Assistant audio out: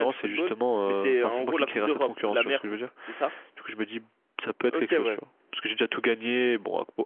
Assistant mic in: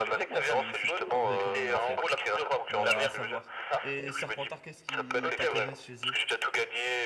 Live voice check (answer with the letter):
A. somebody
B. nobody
A